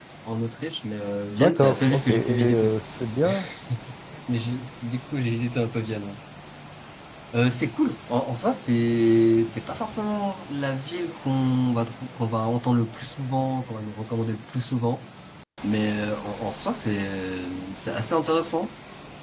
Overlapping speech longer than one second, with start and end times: 1.3-2.7

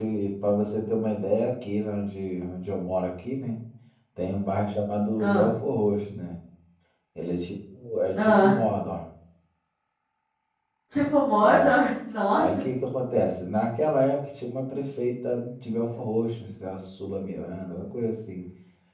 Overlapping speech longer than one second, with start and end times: none

